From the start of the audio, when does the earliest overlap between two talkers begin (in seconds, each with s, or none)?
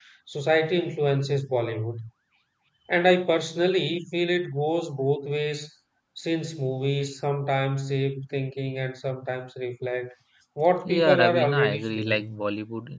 10.8 s